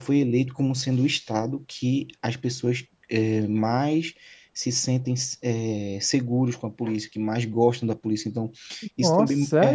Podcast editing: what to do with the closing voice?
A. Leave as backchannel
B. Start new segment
A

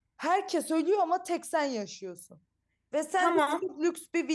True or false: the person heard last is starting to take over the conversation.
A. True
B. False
B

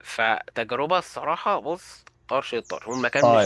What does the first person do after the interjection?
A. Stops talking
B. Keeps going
A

